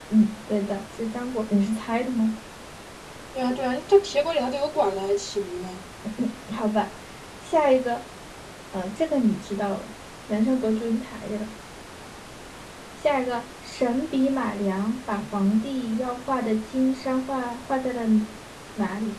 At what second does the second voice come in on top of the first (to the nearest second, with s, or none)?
none